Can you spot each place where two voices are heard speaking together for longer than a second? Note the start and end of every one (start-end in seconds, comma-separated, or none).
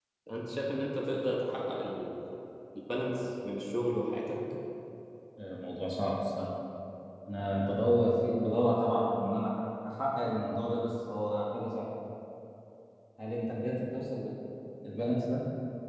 none